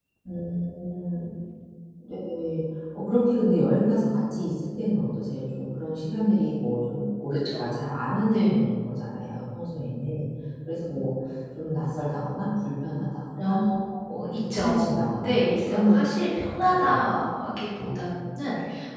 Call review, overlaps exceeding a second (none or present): present